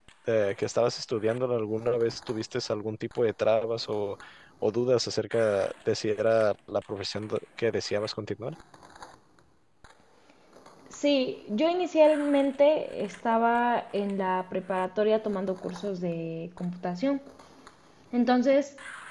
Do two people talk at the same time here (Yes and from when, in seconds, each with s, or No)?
No